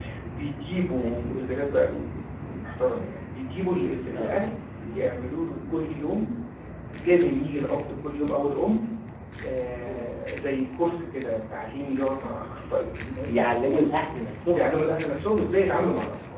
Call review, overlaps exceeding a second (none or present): none